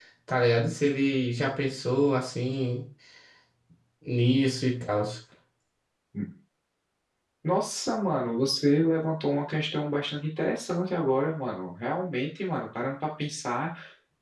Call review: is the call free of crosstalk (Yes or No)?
Yes